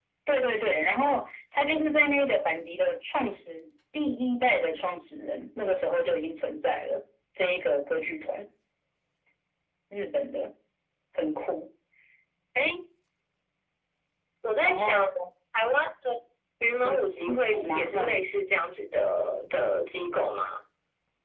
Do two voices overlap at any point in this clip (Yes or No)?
Yes